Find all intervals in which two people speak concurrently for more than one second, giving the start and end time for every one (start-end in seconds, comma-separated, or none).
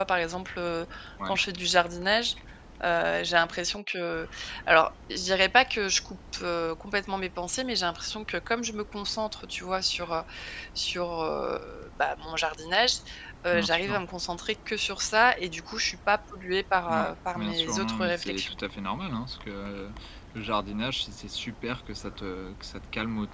16.9-18.6